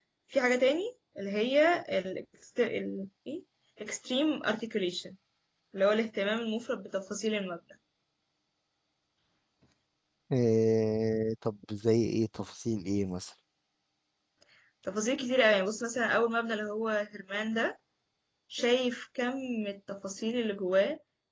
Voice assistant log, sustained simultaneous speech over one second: none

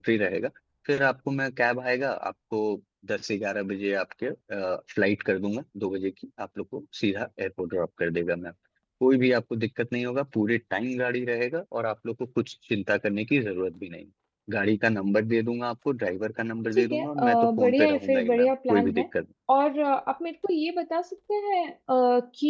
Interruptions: present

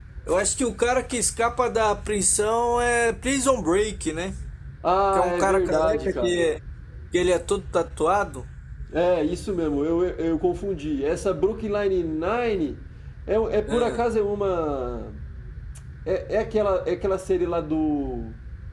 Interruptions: present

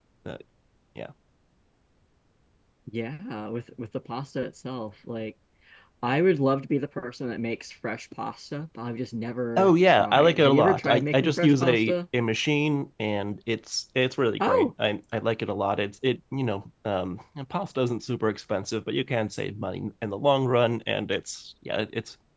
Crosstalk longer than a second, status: present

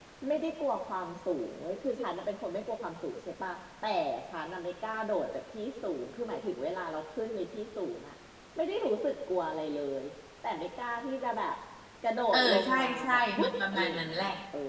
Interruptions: present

